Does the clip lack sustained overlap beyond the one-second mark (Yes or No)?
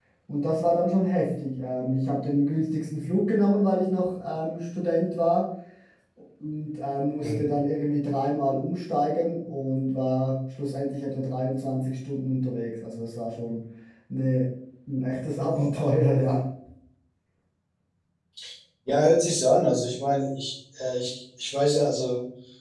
Yes